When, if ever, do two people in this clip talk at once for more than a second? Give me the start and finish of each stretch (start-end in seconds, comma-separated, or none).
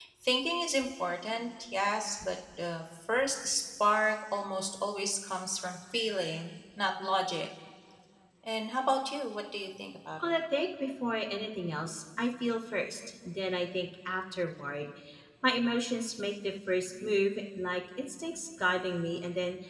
none